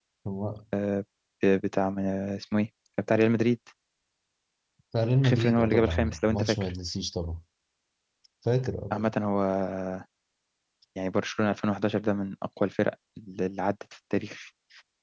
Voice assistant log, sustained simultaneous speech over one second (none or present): present